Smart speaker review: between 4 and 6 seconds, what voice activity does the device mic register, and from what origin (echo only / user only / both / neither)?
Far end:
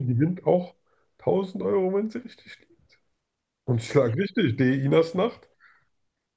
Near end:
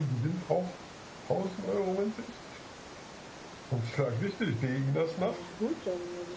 both